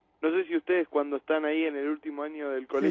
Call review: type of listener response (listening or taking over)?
taking over